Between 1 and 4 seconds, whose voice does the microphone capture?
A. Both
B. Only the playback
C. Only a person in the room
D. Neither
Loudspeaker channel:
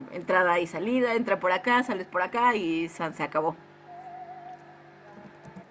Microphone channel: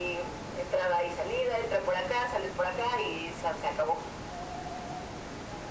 B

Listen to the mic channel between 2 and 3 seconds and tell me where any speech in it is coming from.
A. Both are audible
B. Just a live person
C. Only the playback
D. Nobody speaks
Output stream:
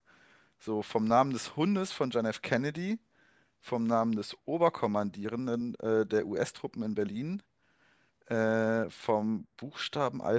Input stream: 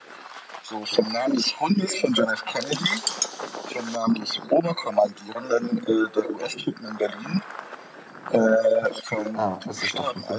C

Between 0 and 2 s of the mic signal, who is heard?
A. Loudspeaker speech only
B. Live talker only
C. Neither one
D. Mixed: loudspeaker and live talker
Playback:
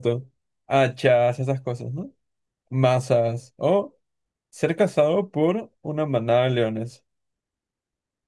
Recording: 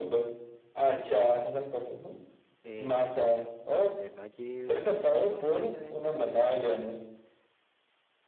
A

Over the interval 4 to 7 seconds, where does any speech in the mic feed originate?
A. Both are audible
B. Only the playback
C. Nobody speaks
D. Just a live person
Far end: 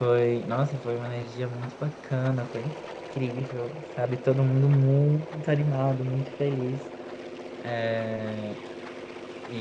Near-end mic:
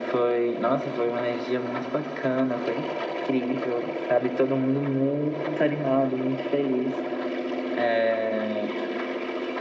B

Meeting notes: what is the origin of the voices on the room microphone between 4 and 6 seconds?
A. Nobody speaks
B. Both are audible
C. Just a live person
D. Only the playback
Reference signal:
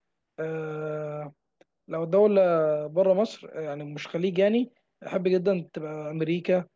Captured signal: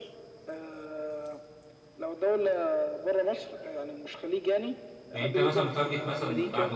B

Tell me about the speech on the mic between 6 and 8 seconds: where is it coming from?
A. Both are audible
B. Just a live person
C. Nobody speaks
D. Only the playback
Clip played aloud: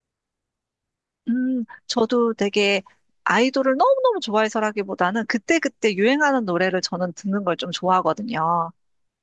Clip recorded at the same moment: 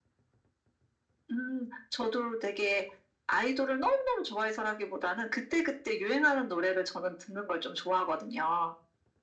D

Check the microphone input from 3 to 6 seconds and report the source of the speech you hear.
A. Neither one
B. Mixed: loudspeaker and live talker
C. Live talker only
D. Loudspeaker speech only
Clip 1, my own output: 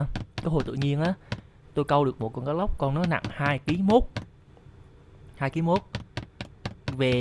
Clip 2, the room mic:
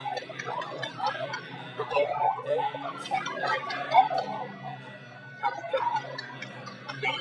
B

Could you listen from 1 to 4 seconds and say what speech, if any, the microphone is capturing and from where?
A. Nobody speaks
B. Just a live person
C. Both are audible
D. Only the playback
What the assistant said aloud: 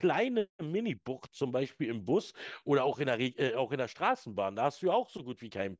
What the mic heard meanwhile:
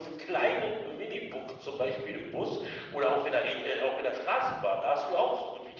D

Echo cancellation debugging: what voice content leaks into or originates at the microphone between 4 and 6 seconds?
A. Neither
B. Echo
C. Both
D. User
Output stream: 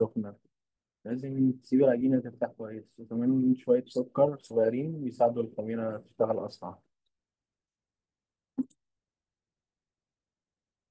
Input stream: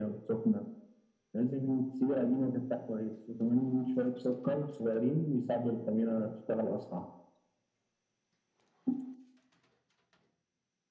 B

